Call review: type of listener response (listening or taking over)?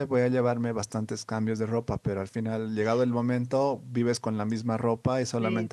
listening